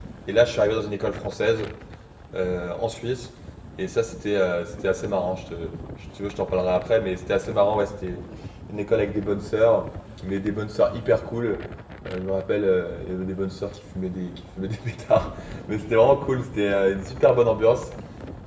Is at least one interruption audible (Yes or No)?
No